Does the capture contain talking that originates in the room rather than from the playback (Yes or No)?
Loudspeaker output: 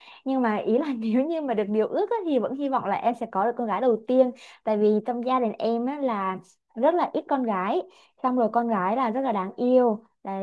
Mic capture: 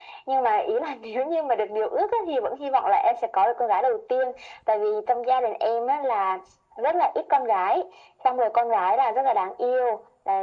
No